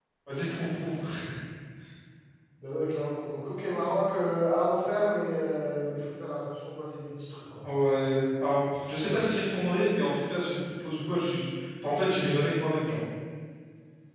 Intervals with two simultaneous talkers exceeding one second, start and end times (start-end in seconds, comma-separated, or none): none